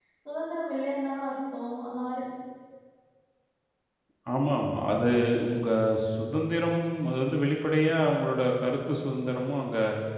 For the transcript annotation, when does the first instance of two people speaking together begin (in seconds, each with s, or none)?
none